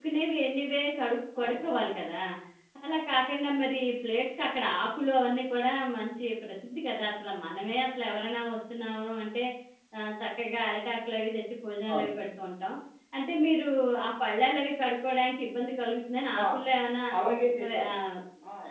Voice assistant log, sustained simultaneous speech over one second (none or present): none